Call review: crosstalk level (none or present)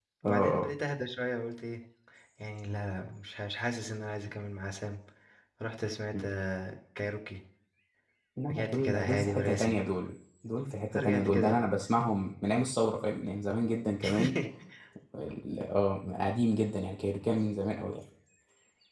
present